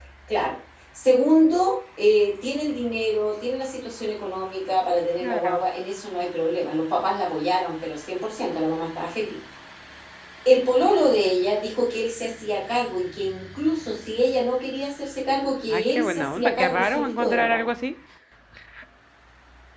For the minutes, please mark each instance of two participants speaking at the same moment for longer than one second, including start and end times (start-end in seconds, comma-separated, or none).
15.7-17.7